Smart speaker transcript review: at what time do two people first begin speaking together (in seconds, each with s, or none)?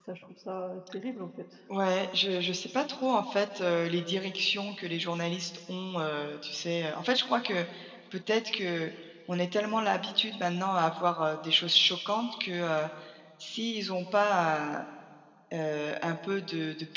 none